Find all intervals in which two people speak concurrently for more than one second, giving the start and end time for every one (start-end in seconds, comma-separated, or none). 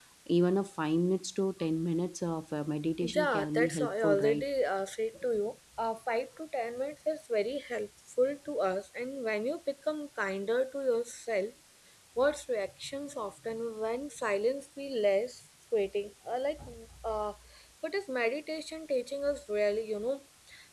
3.0-4.4